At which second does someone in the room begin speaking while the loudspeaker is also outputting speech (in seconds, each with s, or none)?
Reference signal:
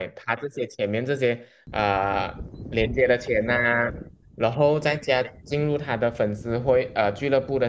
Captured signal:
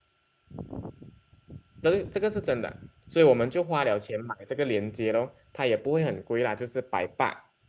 1.8 s